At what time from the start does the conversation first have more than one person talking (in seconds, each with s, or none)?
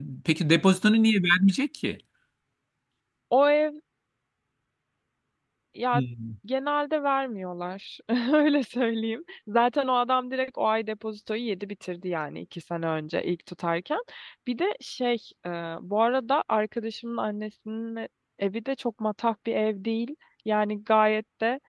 none